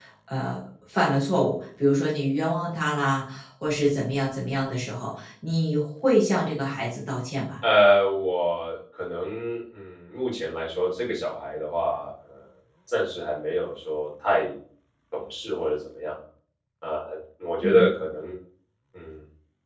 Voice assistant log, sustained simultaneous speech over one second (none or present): none